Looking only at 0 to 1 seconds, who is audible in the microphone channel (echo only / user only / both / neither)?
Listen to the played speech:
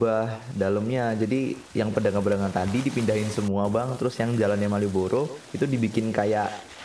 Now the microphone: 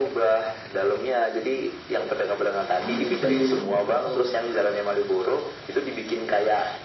echo only